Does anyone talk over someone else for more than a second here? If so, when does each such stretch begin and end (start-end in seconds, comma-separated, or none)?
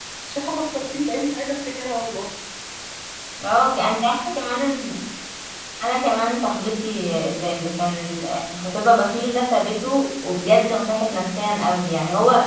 none